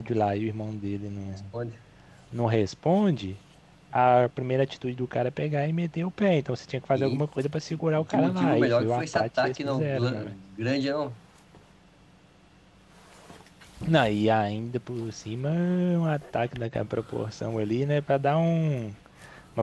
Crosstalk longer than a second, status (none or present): present